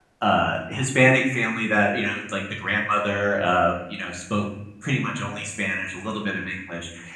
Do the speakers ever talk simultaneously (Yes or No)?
No